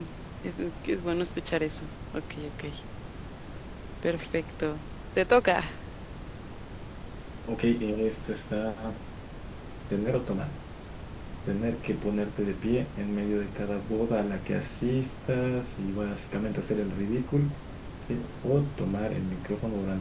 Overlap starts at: none

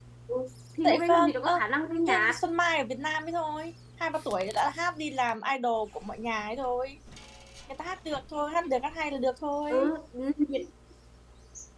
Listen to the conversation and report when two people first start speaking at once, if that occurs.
0.8 s

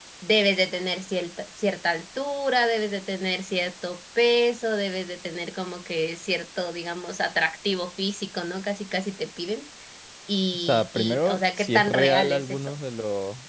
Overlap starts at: 10.5 s

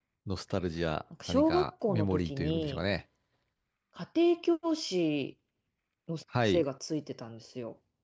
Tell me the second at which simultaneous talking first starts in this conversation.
1.3 s

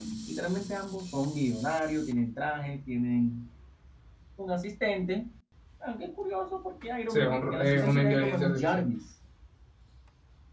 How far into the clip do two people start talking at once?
7.1 s

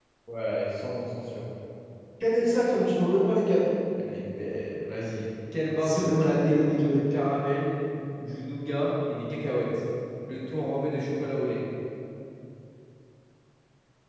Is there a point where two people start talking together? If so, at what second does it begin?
5.8 s

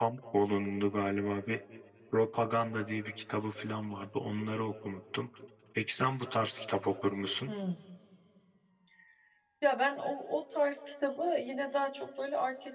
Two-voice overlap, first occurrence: none

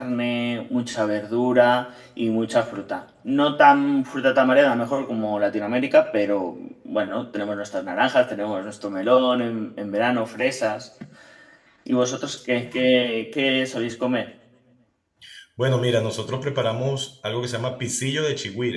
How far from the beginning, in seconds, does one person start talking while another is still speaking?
none

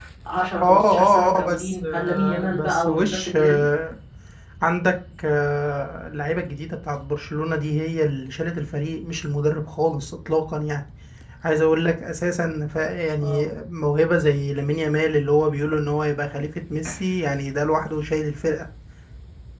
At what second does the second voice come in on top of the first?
0.6 s

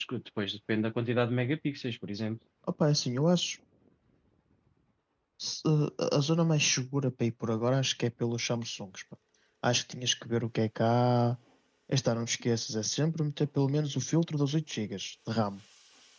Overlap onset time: none

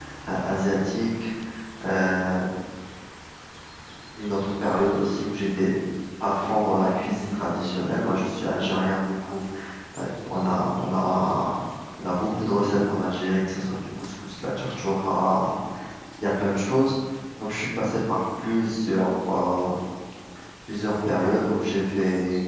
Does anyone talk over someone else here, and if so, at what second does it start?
none

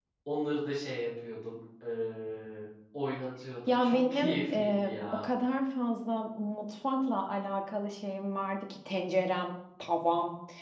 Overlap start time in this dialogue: 3.7 s

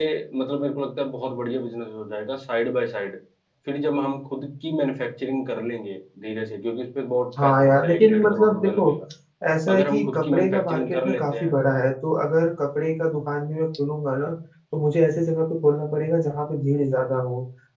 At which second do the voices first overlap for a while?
7.4 s

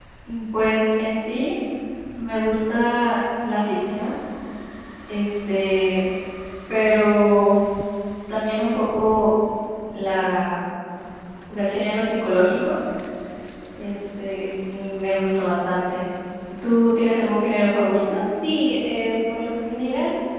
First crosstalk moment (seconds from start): none

